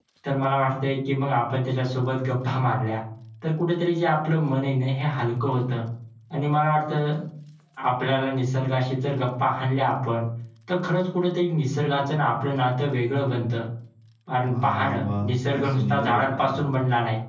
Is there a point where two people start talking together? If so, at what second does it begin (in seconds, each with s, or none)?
14.4 s